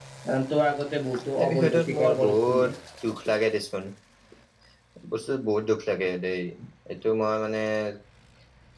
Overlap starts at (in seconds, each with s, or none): 1.4 s